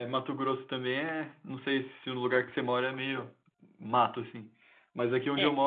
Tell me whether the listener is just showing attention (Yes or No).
Yes